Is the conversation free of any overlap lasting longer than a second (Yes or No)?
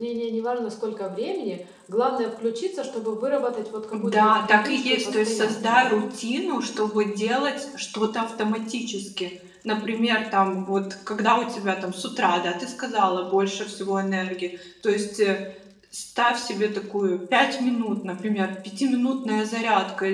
No